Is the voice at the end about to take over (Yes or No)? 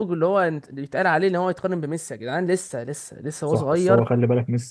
Yes